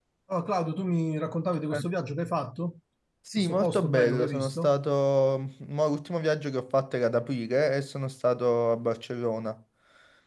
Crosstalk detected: Yes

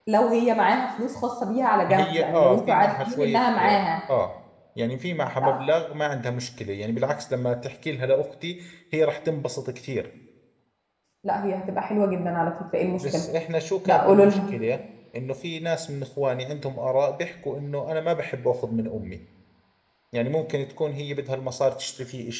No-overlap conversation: No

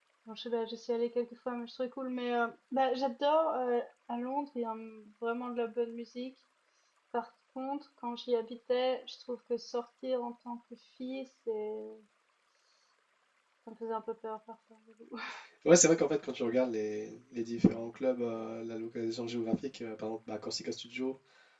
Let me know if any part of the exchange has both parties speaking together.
No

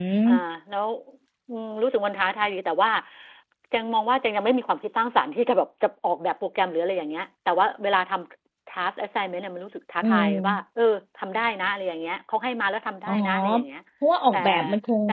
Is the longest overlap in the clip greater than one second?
No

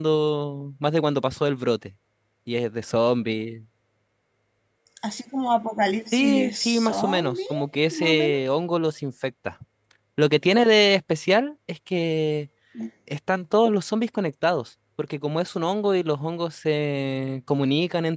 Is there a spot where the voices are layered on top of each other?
Yes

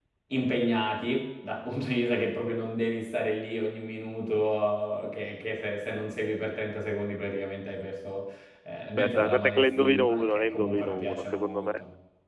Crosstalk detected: Yes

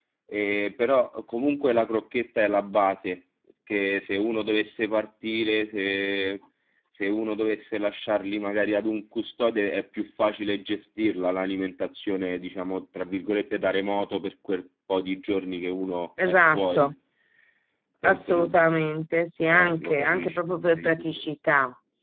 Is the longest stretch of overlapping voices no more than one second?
No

